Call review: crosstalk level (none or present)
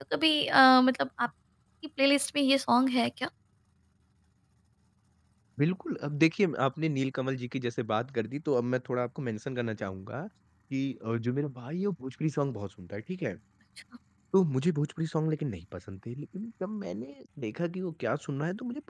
none